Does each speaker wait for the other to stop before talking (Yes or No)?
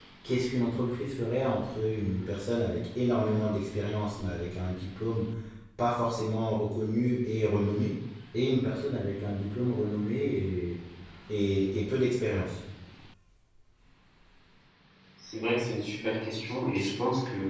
Yes